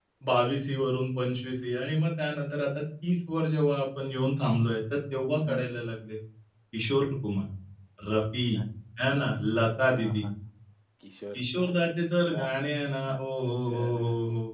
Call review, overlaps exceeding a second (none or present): none